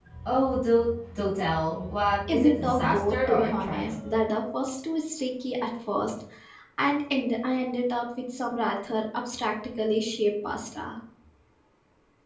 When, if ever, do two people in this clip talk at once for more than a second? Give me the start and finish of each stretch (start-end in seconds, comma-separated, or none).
2.3-3.9